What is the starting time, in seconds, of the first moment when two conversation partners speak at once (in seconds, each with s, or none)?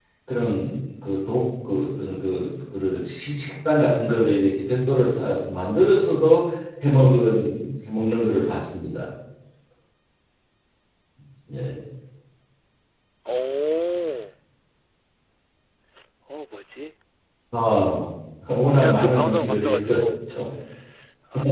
18.8 s